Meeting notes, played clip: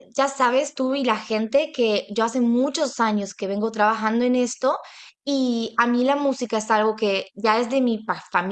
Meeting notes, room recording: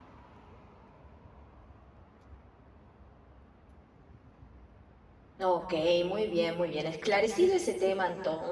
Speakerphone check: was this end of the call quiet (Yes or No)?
No